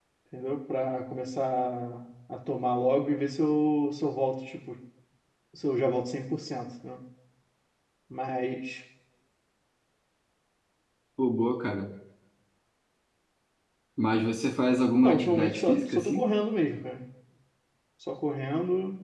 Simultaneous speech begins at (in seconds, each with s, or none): 15.0 s